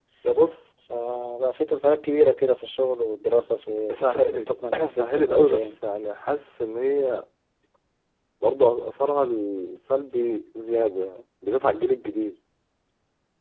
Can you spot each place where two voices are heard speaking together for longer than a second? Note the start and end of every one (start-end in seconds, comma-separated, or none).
3.9-5.8